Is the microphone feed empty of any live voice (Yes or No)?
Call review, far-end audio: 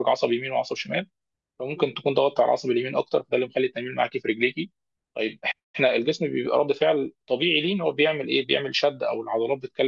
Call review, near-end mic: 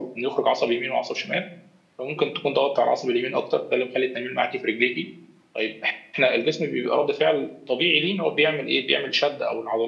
Yes